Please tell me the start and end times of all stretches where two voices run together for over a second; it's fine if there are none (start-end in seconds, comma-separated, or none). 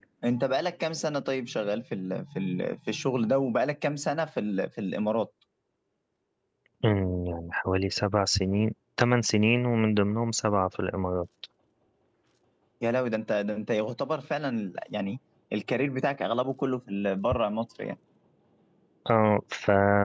none